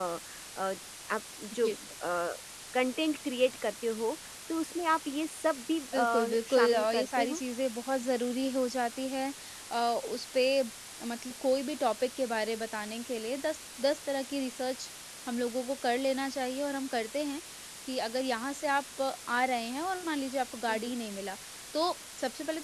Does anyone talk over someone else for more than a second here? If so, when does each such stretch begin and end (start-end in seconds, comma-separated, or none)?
5.9-7.4